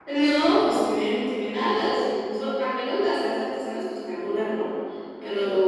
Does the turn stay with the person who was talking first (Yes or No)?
Yes